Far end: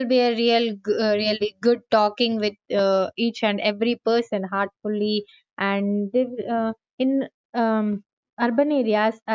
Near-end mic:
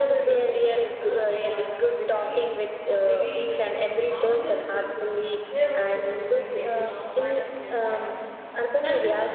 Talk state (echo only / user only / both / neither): both